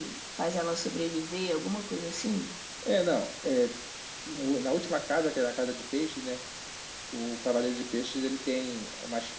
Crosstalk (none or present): none